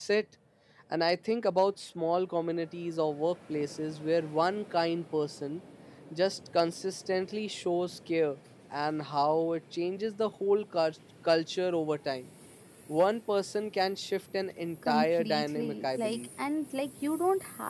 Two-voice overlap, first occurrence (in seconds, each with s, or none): 14.8 s